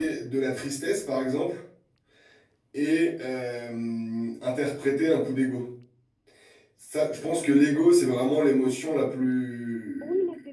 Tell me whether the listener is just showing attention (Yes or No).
No